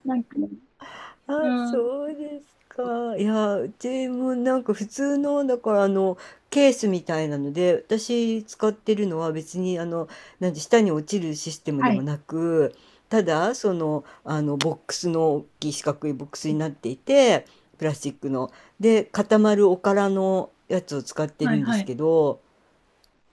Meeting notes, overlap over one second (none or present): none